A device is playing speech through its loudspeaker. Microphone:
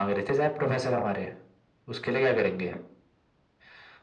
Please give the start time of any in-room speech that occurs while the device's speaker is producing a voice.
none

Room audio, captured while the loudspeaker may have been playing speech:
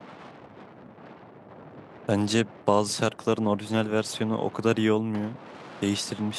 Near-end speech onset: 2 s

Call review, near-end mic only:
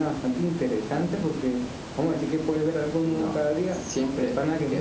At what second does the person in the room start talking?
none

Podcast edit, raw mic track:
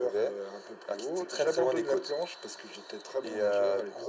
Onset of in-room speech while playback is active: none

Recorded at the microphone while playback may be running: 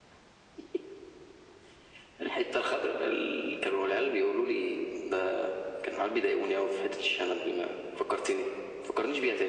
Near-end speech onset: none

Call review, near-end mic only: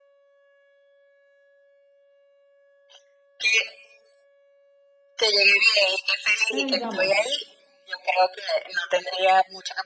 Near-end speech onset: 6 s

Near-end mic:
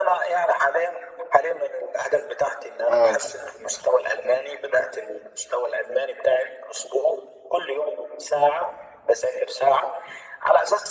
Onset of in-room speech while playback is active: 3 s

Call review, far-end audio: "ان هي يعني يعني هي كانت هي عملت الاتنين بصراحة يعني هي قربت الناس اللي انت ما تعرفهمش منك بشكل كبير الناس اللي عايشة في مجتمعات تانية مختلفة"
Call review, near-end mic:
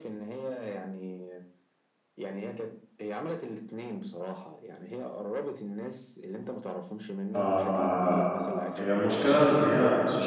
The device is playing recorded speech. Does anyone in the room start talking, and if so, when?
7 s

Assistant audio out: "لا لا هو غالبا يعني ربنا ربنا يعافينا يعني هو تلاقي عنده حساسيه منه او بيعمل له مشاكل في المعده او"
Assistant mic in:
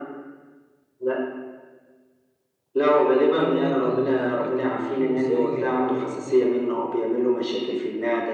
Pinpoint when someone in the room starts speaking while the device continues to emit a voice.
3 s

